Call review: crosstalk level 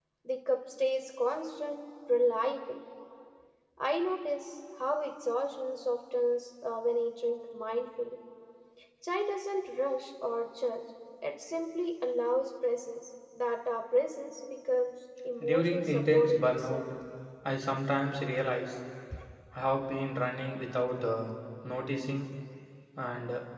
present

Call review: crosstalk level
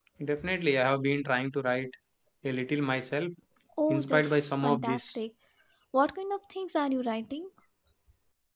present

